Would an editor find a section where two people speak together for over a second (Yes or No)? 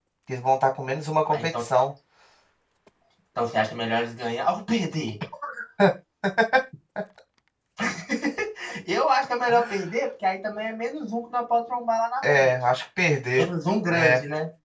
No